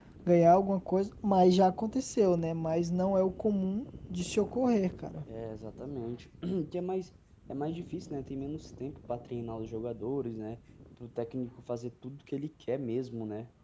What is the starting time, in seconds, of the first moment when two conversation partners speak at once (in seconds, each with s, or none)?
none